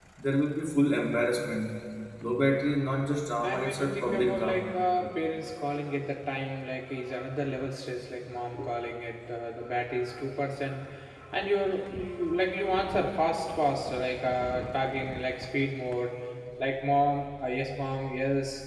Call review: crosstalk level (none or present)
present